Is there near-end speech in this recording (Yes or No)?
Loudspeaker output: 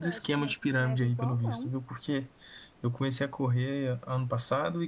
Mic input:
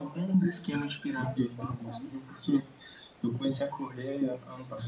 No